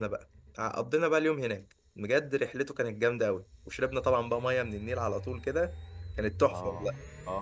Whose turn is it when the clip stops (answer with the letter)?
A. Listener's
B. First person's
A